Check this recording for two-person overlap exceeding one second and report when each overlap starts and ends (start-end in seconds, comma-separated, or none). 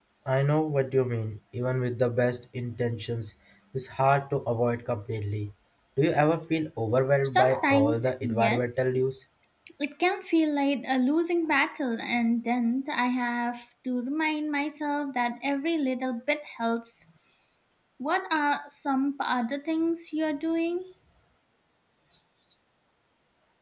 7.2-8.7